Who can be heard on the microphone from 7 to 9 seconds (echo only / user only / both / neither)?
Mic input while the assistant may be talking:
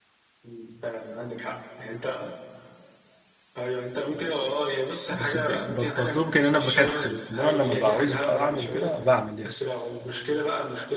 both